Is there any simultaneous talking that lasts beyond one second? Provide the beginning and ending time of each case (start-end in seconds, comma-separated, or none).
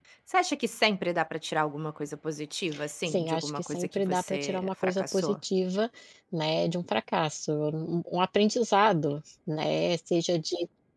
3.1-5.3